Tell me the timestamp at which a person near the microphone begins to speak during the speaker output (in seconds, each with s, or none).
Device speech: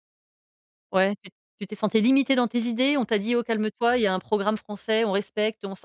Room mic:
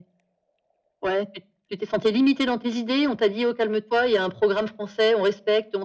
none